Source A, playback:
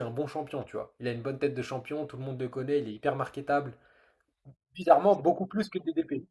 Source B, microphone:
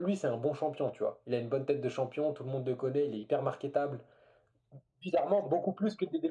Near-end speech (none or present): none